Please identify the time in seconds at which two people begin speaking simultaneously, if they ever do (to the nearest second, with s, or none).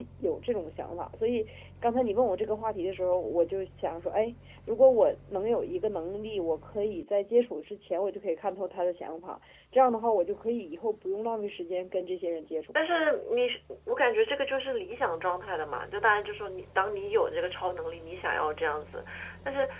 none